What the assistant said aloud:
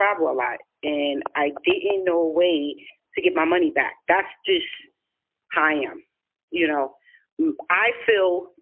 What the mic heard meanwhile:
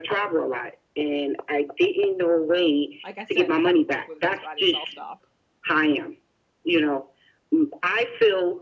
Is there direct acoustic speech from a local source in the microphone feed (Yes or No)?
Yes